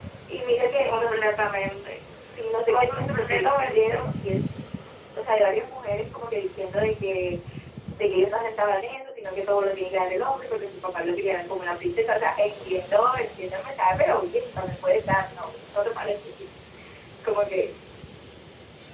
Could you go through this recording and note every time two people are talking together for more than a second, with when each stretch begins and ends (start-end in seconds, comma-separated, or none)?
2.7-4.0